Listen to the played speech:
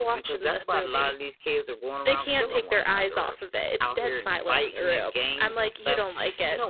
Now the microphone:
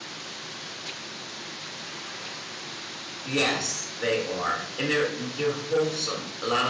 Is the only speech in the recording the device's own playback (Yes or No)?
No